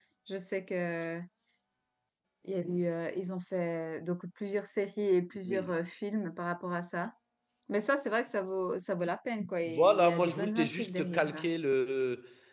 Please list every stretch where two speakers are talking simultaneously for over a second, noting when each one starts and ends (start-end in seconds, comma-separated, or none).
9.7-11.3